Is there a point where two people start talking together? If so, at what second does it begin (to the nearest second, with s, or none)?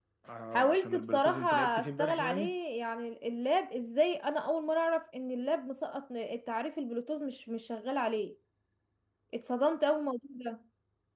1 s